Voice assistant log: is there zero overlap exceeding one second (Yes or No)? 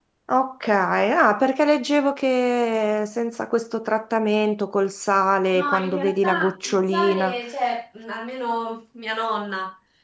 No